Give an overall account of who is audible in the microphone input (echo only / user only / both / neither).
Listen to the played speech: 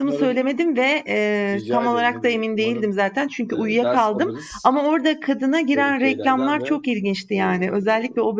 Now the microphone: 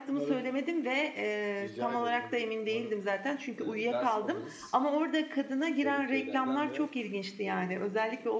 echo only